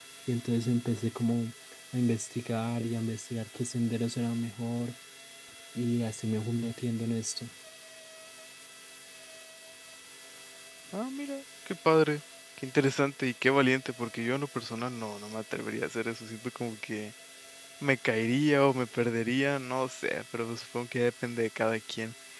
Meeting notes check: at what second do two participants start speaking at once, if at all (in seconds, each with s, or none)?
none